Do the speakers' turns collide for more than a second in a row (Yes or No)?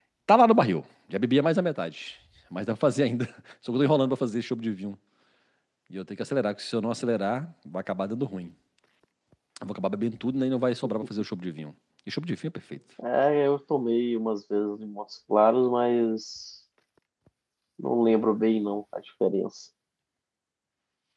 No